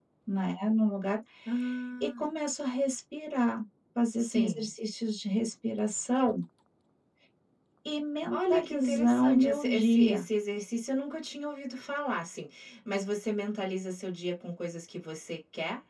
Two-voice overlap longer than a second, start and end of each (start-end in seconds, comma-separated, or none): 8.3-10.2